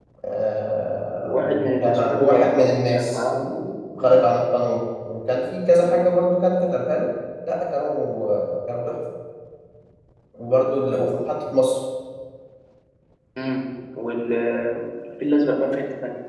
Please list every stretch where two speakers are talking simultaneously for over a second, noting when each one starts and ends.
1.2-3.2

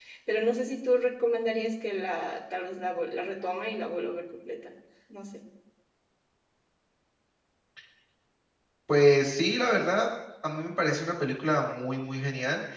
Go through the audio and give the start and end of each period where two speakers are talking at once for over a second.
none

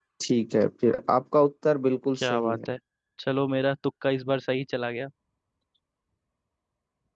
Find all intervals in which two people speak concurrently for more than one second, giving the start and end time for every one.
none

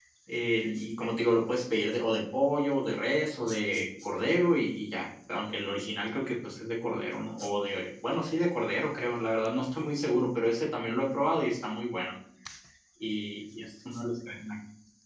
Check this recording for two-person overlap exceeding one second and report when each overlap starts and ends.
none

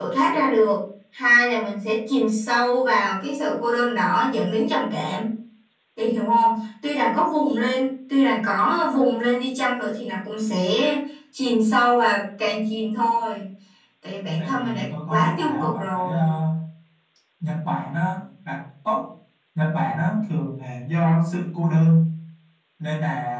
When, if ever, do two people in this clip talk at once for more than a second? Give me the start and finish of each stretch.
14.4-16.3

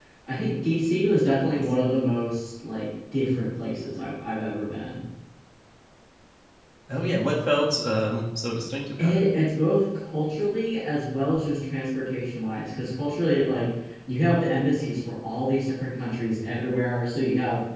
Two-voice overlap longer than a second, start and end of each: none

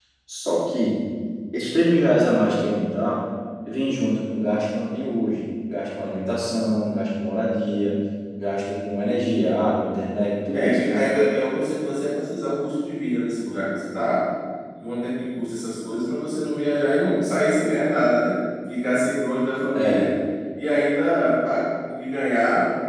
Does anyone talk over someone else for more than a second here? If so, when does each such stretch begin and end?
none

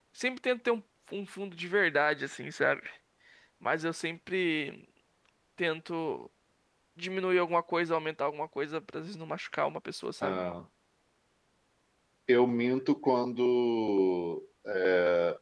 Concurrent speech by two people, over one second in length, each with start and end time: none

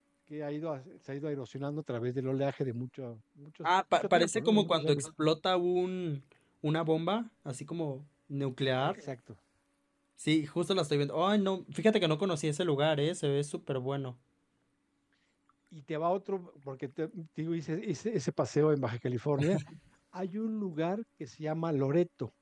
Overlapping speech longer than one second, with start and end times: 3.6-5.0

